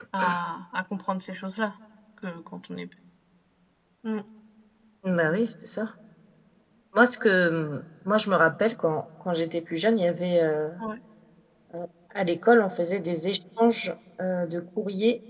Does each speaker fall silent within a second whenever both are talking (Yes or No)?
Yes